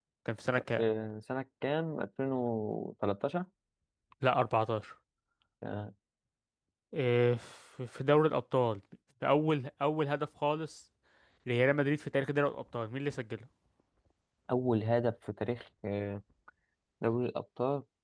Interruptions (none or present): none